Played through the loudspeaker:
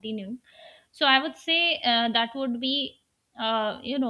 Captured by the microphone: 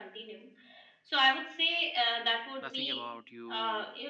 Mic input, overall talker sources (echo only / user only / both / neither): both